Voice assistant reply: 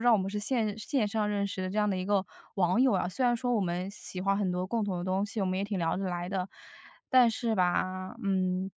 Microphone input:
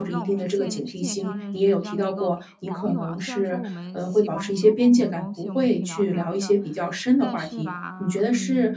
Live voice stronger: Yes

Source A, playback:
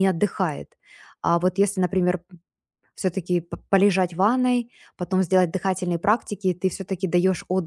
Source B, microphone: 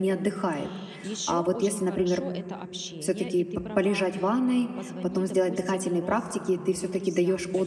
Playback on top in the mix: Yes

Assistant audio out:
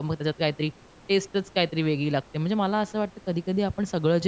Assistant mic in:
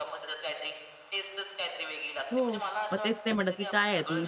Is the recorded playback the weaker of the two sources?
Yes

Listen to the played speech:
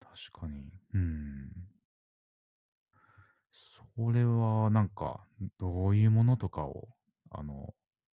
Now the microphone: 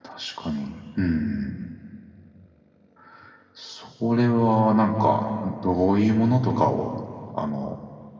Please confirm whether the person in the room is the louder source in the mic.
No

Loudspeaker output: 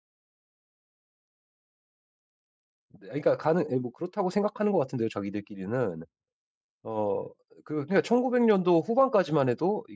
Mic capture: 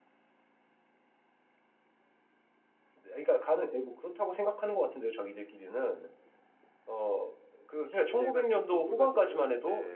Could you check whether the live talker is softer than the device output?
Yes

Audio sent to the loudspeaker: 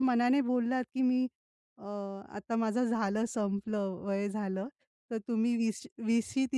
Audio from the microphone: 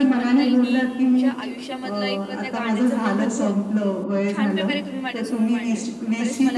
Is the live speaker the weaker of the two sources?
Yes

